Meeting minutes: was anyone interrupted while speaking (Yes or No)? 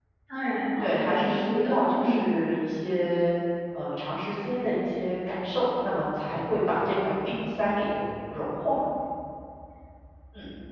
Yes